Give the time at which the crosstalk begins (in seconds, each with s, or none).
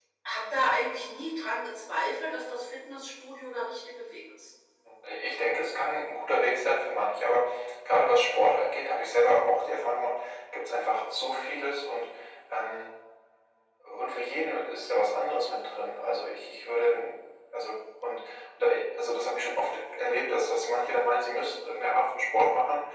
none